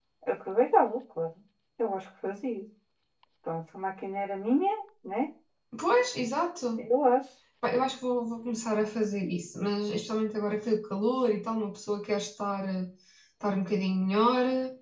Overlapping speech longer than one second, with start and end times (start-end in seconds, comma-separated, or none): none